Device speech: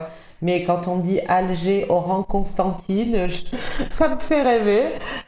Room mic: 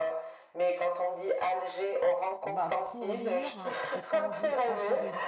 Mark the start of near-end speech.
2.4 s

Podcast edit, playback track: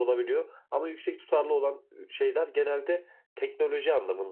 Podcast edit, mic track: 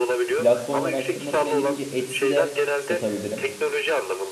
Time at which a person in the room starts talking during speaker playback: 0.3 s

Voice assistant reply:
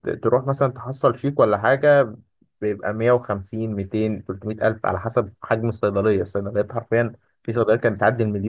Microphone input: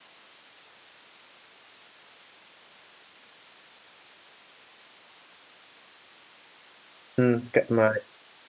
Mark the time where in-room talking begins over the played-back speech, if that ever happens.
7.2 s

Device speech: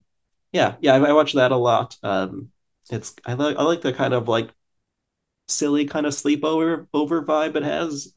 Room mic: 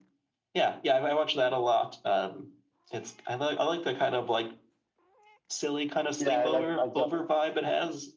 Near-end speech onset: 6.2 s

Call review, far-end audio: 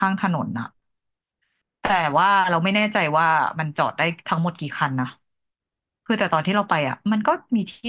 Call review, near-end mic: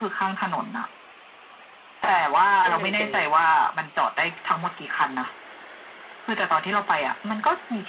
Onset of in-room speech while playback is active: 2.6 s

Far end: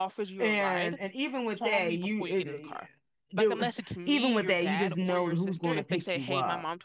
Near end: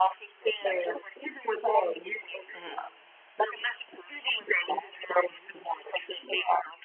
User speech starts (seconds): 2.5 s

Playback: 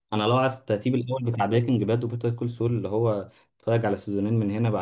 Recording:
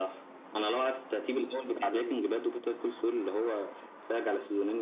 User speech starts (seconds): none

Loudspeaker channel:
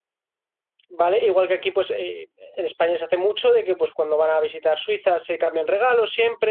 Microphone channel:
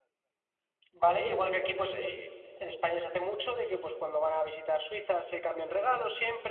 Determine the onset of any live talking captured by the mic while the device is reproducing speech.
none

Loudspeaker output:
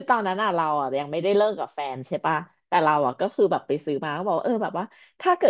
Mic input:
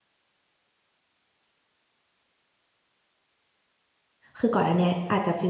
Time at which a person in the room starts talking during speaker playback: 4.4 s

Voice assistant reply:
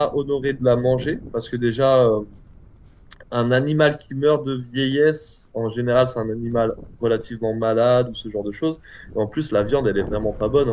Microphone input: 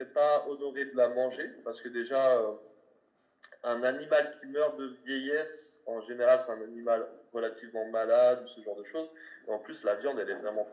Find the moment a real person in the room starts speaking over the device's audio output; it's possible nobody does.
none

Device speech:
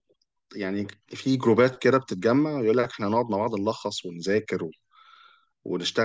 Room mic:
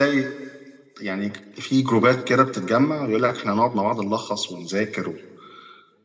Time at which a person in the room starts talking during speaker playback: none

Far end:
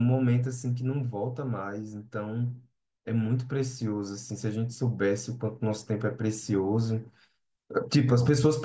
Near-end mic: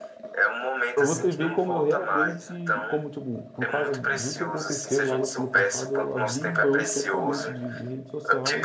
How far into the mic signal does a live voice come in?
0.9 s

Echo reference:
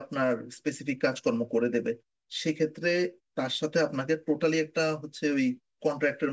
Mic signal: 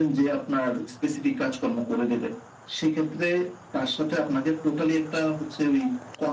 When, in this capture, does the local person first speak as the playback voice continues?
none

